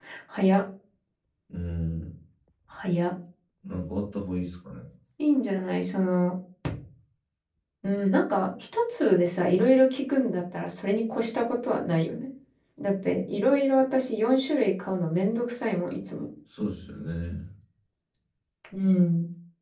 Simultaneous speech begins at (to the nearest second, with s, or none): none